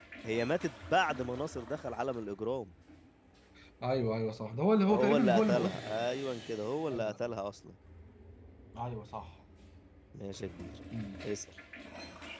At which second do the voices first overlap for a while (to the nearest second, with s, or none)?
5 s